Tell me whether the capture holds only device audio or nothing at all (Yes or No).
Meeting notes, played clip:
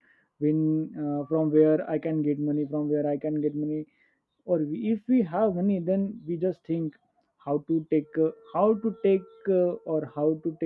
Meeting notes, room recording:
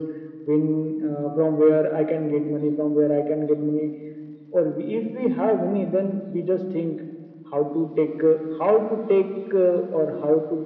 Yes